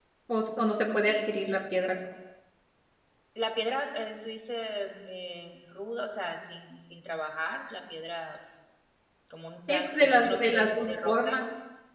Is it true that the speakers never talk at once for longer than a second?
No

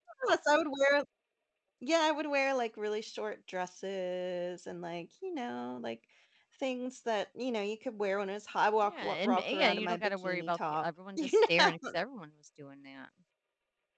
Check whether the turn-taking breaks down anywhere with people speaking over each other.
Yes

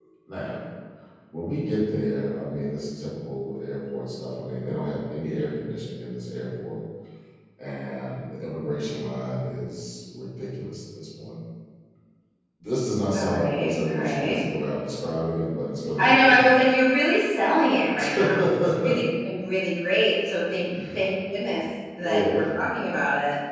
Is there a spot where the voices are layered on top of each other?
Yes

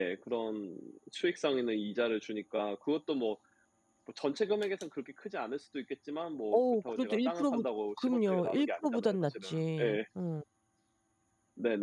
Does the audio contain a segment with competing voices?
Yes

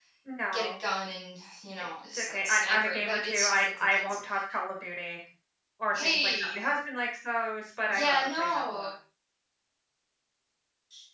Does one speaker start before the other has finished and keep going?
Yes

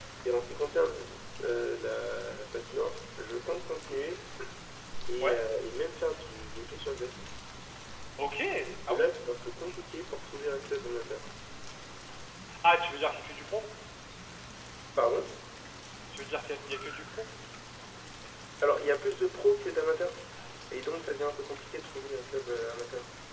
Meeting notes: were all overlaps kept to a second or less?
Yes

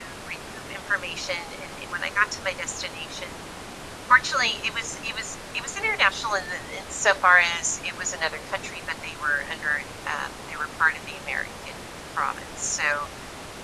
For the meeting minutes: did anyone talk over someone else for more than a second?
No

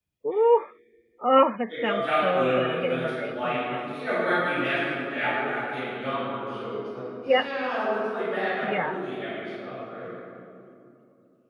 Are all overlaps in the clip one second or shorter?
No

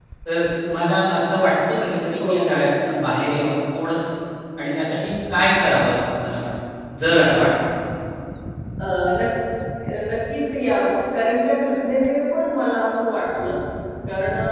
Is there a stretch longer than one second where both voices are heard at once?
No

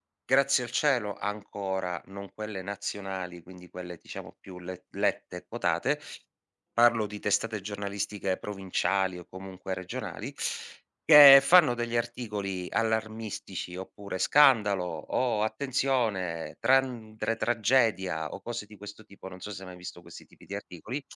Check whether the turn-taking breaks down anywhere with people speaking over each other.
No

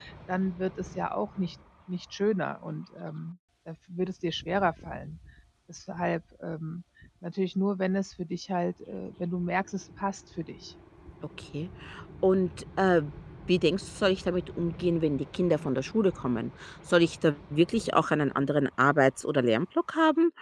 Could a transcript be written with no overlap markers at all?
Yes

